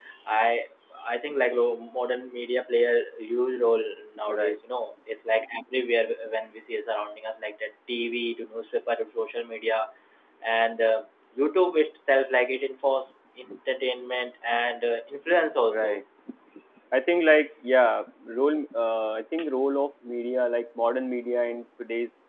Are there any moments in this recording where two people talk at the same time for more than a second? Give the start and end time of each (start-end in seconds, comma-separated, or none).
none